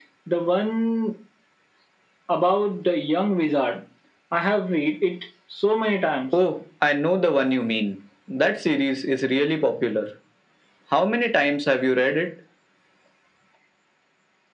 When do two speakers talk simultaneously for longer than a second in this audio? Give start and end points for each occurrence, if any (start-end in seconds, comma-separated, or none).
none